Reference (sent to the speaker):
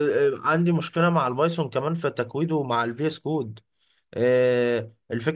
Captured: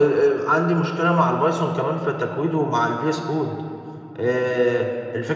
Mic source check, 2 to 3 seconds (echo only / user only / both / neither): echo only